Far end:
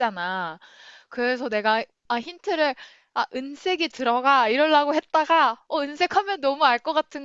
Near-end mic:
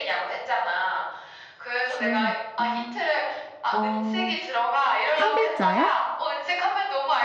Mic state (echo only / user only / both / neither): both